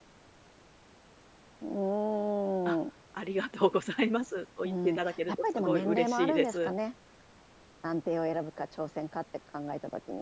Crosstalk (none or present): present